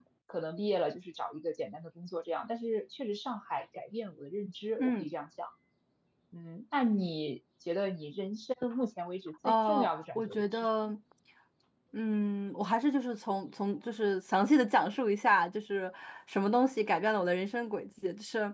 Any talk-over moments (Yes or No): Yes